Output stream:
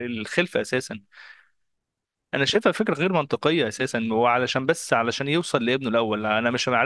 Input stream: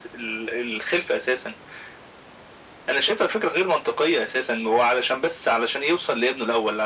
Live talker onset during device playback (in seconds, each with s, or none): none